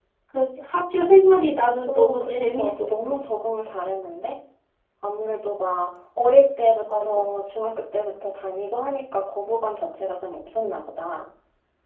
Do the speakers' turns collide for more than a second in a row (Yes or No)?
Yes